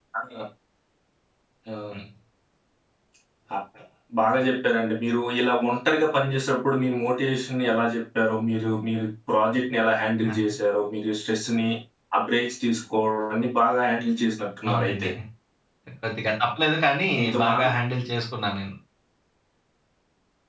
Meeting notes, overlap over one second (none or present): none